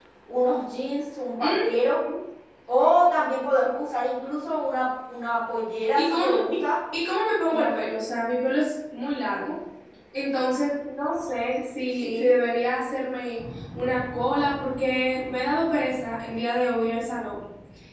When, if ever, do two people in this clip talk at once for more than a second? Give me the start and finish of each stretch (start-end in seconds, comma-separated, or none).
none